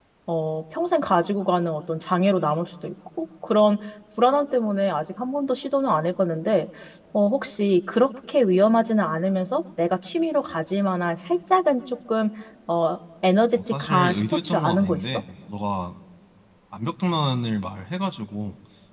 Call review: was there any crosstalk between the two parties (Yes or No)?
Yes